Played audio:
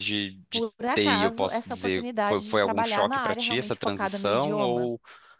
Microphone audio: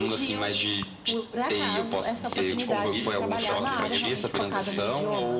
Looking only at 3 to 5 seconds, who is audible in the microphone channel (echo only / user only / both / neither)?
both